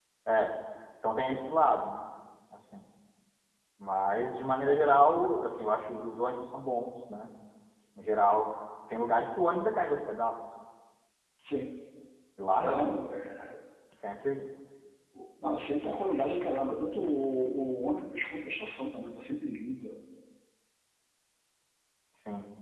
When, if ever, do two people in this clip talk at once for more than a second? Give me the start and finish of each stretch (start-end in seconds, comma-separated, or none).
none